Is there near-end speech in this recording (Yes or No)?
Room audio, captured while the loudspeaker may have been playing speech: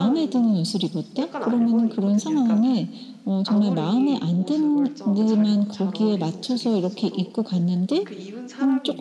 Yes